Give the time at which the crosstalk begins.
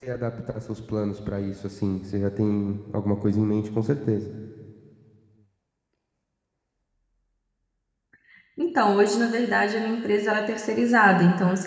none

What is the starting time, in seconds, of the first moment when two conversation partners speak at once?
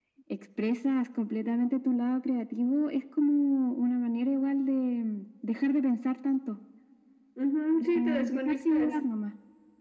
7.7 s

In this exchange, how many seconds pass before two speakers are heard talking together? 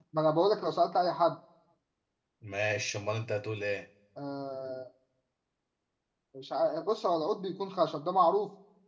none

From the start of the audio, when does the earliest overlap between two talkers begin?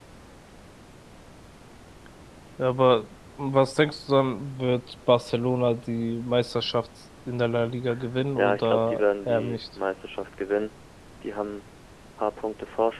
8.4 s

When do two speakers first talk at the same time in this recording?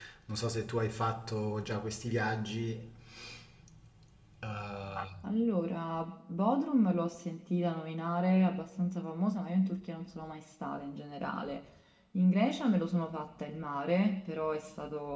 none

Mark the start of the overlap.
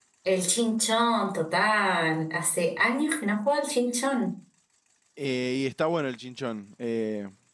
none

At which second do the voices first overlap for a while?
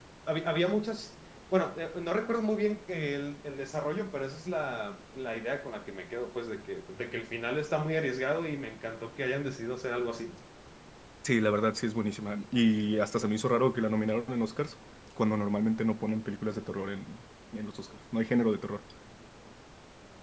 none

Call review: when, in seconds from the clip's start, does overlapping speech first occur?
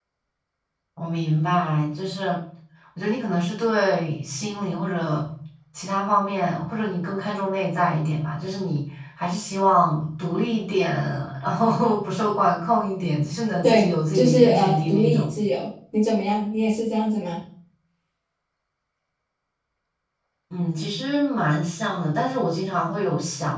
13.6 s

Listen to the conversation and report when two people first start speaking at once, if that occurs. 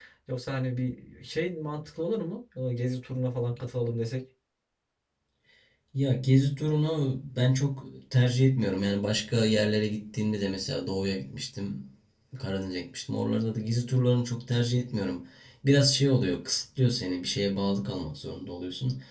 none

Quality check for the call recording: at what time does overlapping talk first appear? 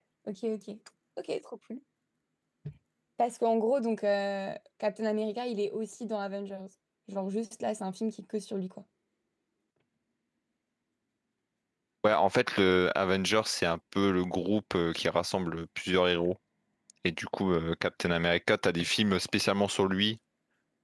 none

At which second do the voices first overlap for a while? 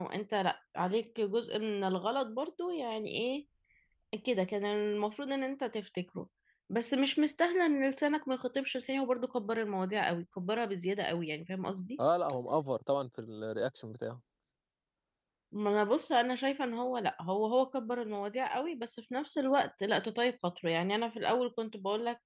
none

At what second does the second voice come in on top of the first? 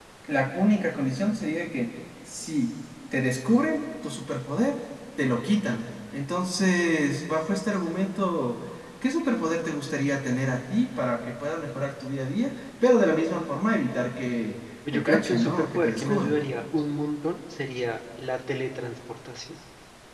14.8 s

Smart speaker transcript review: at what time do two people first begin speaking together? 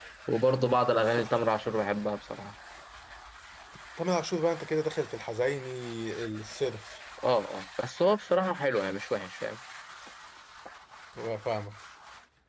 none

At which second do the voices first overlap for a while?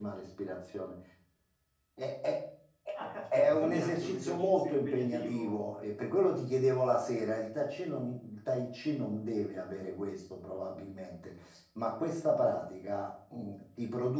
3.4 s

